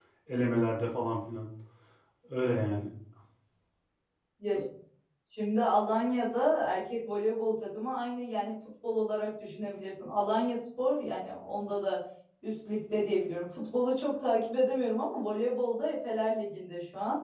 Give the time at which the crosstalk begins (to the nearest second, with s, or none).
none